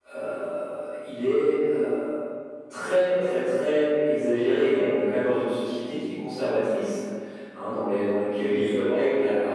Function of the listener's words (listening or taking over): listening